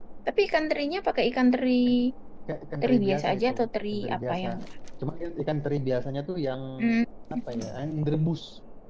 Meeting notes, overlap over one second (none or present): present